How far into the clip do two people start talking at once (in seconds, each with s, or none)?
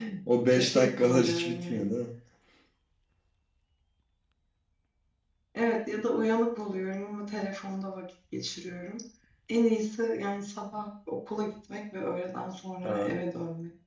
0.5 s